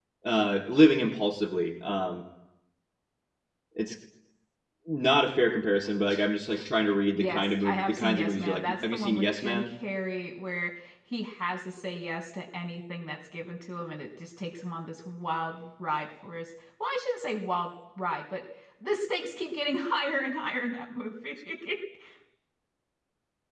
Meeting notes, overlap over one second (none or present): present